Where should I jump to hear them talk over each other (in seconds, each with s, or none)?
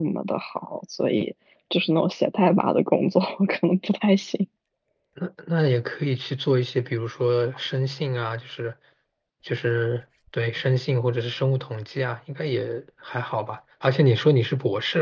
none